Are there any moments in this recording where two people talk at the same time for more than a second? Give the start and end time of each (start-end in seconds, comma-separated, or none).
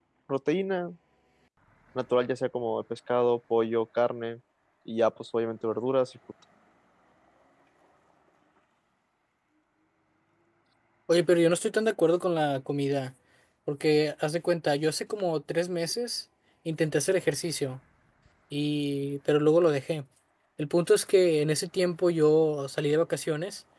none